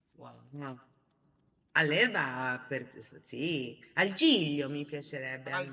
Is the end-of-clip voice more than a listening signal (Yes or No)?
Yes